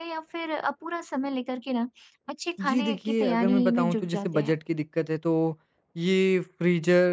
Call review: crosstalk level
present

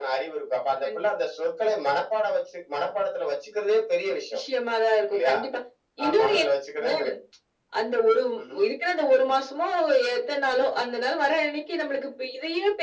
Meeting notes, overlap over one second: none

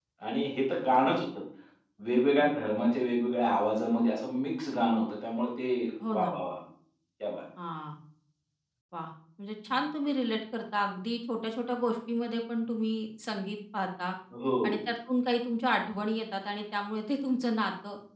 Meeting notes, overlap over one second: none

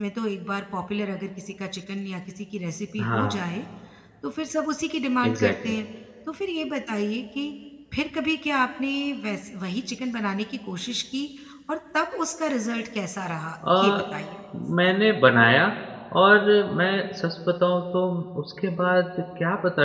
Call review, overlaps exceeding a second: none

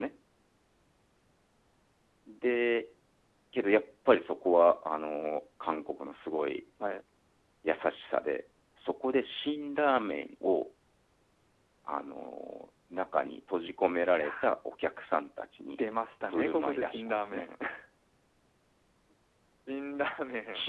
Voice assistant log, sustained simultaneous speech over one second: present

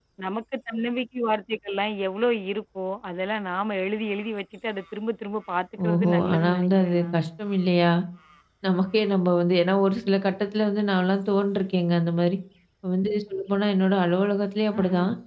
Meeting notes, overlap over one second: present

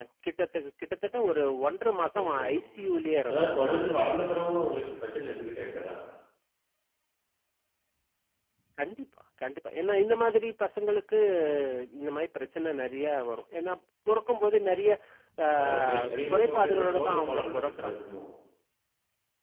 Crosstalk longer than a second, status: present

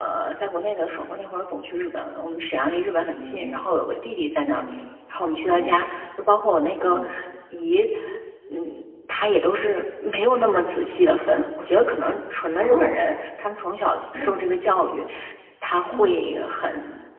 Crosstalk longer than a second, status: none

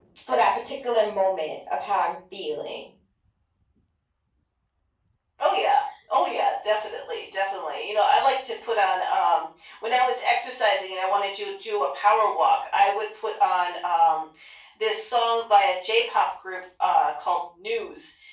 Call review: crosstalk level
none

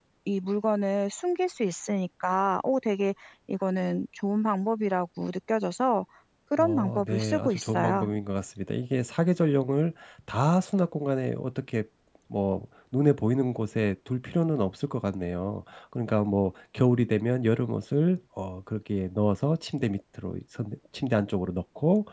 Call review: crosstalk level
present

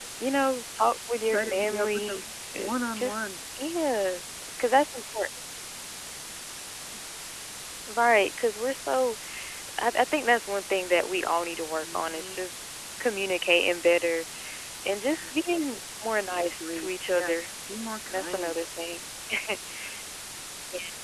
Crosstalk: present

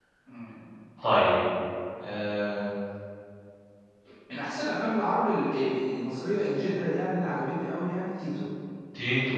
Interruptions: none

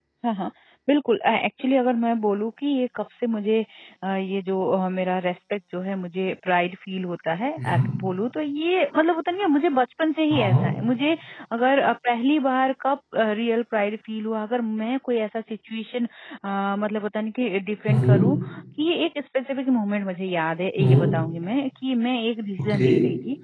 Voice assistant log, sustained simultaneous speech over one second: none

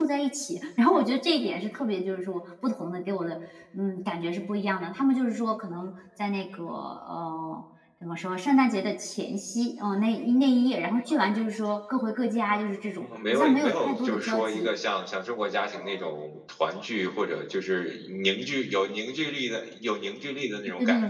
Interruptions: present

